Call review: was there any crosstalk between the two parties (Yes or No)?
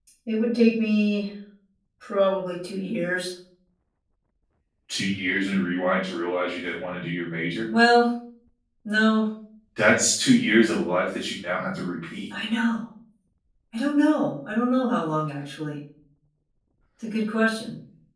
No